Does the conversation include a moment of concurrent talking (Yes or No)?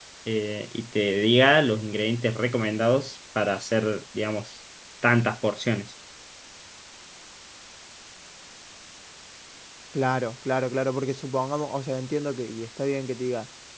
No